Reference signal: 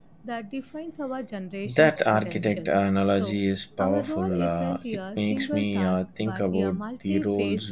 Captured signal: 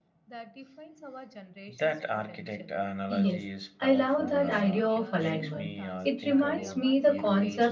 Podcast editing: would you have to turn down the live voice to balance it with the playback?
Yes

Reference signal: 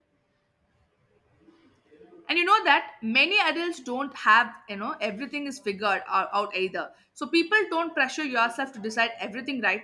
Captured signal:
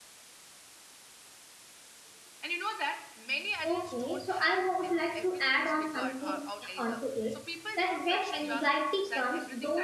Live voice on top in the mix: Yes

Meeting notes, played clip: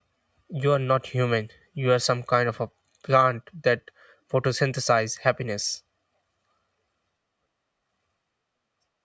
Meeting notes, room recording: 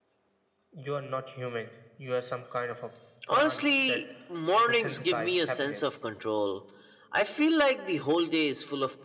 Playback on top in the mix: No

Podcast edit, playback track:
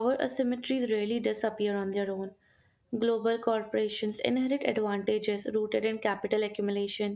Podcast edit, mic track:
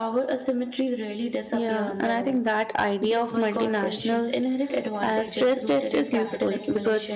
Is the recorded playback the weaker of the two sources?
Yes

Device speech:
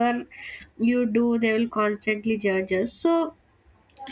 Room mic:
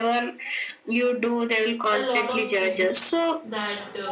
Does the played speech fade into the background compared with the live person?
No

